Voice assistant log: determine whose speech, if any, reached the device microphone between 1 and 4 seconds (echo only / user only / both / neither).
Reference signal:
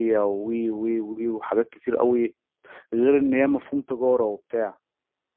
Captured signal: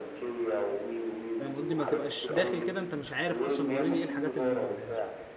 both